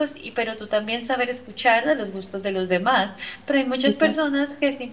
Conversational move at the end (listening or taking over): listening